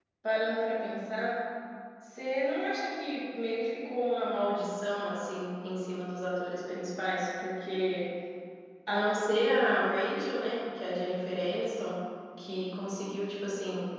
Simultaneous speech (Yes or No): No